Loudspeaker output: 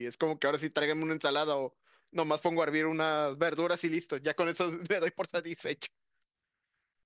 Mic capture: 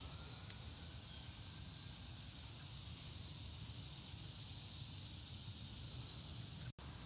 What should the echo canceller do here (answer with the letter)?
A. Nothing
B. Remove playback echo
A